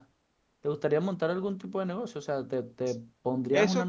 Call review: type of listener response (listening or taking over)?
taking over